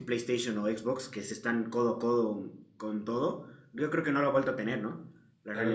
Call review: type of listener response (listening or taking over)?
taking over